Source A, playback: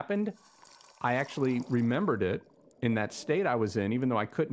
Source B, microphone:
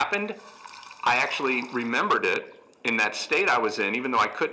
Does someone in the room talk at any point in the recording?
No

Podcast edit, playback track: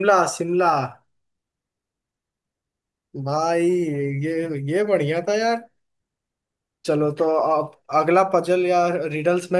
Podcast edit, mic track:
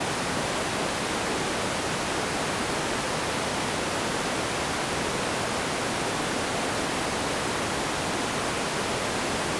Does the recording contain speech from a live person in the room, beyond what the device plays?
No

